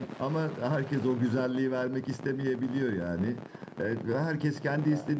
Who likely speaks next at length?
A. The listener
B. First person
B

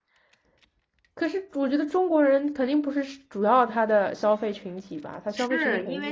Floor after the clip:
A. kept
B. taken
B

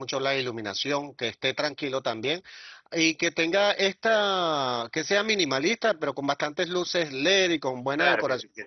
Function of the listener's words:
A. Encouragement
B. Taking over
B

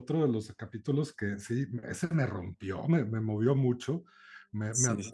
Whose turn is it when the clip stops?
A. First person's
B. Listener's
A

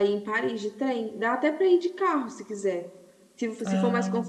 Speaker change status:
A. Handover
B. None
B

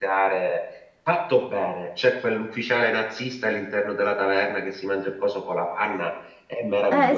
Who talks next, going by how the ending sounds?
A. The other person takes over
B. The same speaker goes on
A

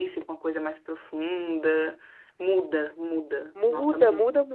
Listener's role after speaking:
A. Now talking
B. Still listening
A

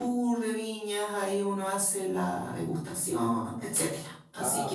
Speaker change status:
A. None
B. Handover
B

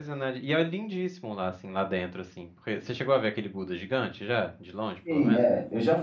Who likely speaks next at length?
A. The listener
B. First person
A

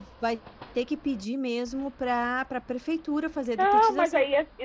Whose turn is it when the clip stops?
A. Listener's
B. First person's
A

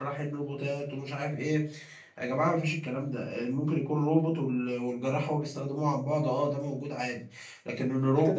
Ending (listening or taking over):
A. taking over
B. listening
A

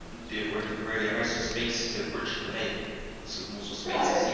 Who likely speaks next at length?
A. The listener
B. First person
A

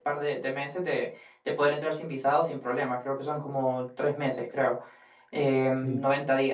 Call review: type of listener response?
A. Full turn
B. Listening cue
B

